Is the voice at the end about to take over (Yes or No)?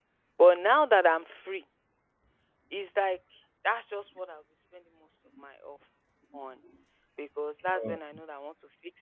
No